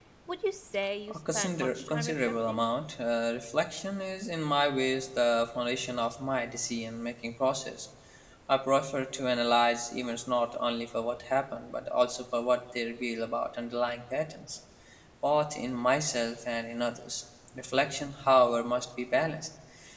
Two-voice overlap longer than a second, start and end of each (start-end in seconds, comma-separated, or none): 1.1-2.6